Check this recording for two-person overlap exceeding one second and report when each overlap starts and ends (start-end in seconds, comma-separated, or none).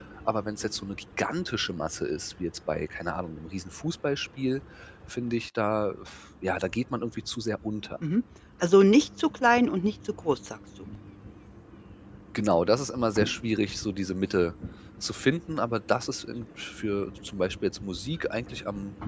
none